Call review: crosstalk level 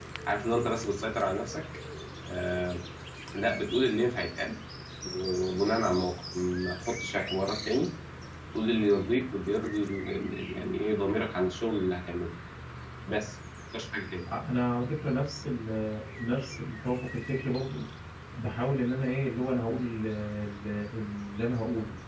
none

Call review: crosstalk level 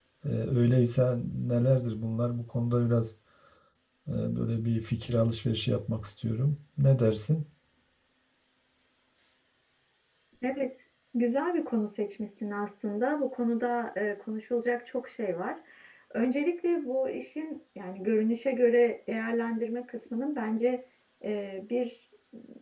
none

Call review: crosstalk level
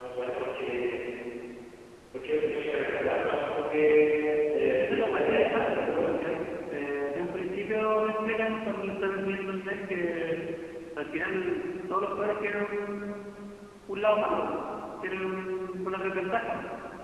present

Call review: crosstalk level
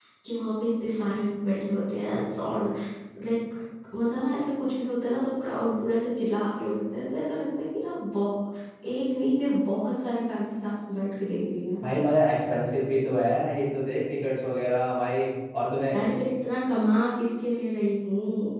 none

